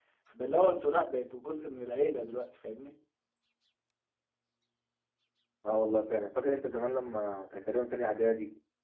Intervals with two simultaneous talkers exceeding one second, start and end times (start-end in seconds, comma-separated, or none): none